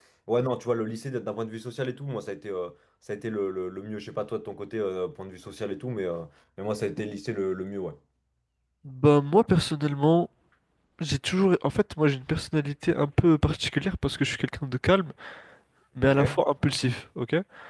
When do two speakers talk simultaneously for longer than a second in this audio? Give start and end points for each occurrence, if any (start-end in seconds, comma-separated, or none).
none